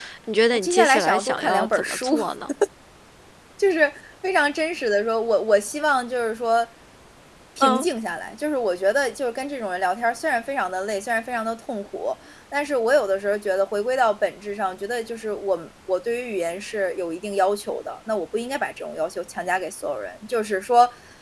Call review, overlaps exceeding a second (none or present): present